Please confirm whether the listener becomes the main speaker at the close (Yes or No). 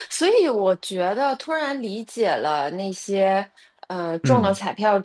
No